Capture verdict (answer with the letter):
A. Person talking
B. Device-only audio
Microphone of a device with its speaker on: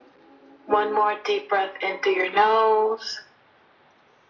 B